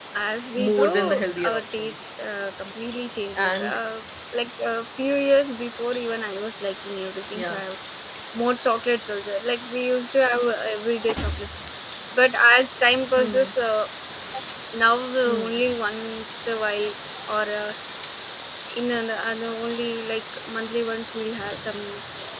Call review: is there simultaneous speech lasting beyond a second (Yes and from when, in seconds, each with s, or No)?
Yes, from 0.6 s